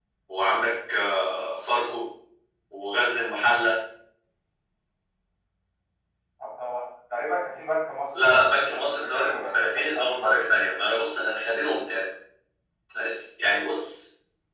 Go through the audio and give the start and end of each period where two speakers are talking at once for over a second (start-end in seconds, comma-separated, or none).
8.2-10.4